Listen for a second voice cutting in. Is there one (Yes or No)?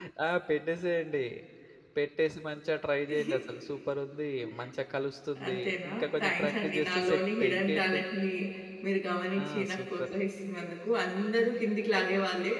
Yes